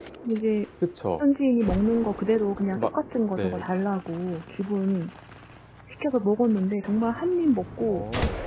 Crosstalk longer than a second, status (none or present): none